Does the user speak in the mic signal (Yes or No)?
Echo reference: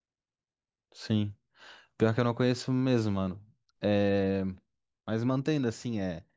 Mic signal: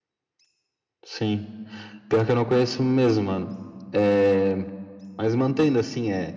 No